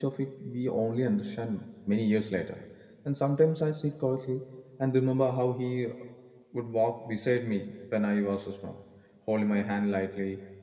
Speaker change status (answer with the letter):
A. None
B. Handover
A